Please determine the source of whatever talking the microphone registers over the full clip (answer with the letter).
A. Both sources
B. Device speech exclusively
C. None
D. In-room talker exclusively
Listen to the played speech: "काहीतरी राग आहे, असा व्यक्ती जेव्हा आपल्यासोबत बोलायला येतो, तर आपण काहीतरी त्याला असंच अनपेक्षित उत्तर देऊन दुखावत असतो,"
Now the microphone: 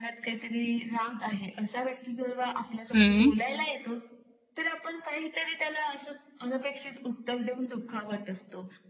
A